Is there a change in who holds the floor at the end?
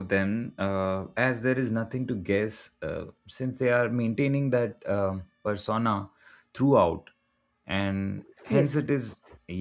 No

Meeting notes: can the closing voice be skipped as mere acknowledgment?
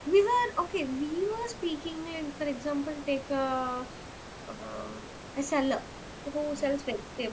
Yes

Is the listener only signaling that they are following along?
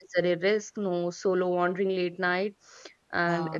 Yes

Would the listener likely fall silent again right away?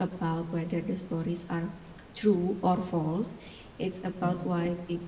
Yes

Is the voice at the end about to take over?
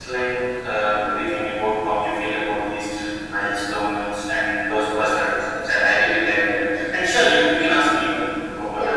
Yes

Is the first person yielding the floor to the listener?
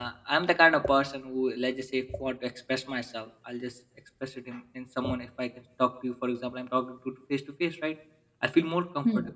No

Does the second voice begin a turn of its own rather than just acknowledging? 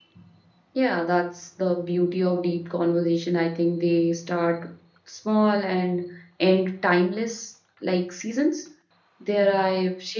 No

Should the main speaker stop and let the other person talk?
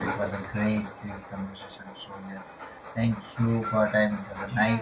Yes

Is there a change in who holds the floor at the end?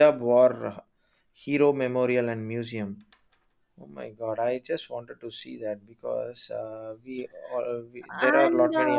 Yes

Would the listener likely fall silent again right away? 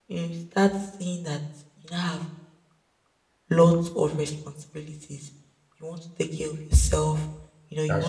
Yes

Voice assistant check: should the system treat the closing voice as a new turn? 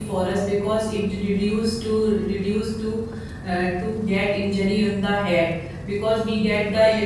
No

